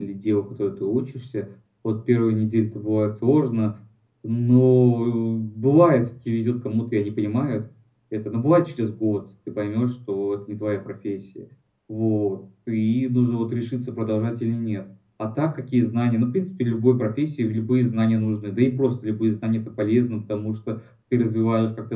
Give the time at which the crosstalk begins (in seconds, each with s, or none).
none